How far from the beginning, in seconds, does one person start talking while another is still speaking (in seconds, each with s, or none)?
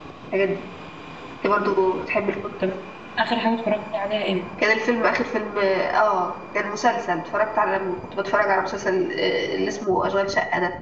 none